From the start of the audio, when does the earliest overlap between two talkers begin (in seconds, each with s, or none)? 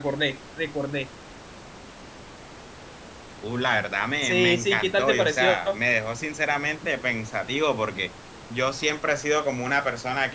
4.2 s